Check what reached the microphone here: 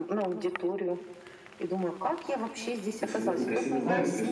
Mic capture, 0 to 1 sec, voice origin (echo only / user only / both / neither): echo only